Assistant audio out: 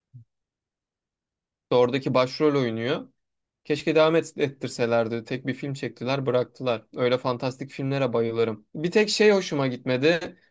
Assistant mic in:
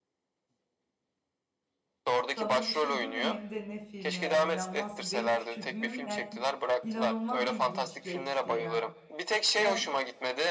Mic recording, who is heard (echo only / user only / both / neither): both